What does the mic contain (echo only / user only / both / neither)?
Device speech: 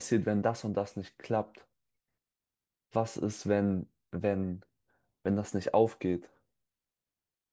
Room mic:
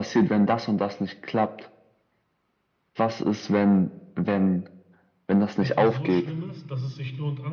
both